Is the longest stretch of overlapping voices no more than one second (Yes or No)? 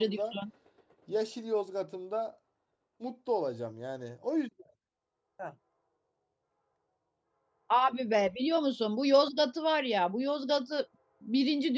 Yes